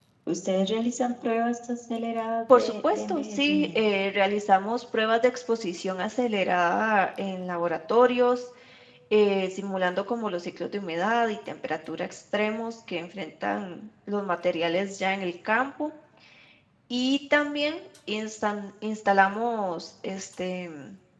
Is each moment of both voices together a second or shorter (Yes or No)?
No